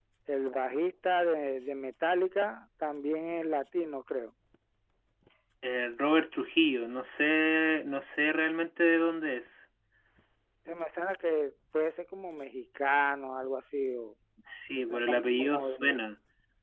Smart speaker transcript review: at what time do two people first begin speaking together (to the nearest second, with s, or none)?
15 s